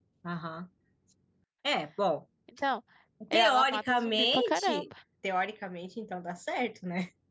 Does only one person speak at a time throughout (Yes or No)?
No